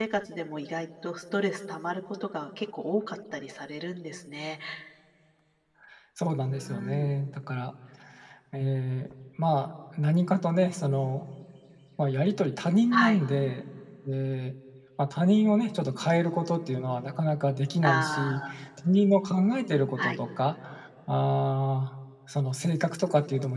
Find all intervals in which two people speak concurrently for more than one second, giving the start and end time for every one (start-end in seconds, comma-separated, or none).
none